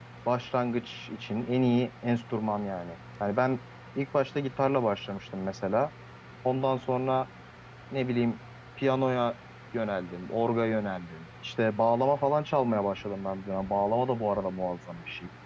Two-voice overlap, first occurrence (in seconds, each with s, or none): none